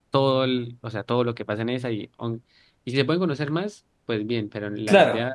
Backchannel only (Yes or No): Yes